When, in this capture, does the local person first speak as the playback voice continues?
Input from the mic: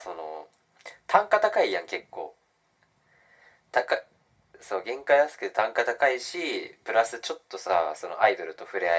none

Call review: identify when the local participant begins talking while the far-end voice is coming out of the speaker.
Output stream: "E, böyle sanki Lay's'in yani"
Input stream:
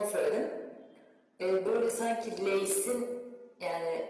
none

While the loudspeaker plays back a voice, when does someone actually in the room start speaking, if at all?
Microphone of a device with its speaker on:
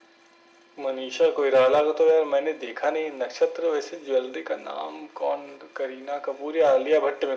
none

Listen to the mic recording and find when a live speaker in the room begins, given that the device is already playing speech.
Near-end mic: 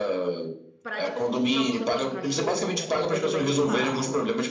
1 s

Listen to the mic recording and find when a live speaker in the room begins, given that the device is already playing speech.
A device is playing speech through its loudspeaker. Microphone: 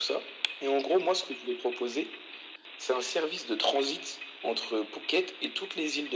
none

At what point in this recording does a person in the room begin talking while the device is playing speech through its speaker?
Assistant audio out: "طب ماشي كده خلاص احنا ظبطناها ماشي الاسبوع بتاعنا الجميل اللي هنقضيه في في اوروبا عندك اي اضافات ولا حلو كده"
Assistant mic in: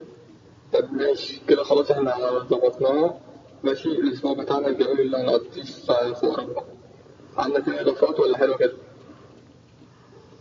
none

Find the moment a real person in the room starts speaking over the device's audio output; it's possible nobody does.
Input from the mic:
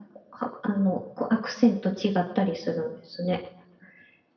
none

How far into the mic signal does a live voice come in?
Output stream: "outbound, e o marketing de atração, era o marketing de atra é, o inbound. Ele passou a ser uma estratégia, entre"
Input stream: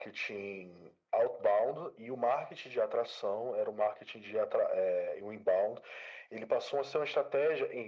none

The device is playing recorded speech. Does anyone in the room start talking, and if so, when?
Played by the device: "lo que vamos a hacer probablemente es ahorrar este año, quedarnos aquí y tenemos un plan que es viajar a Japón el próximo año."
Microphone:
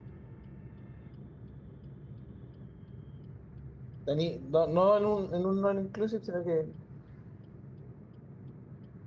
4 s

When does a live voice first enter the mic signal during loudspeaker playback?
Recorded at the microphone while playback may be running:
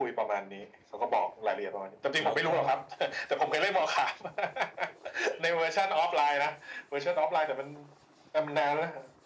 2 s

